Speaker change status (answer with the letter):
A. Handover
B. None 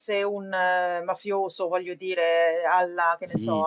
A